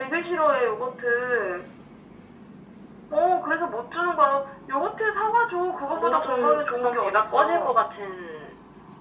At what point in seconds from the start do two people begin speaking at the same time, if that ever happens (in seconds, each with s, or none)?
5.9 s